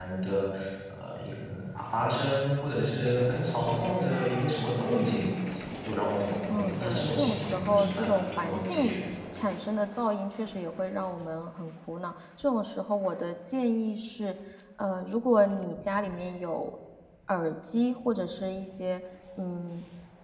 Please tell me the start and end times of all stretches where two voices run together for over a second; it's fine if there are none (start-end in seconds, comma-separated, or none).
6.5-8.9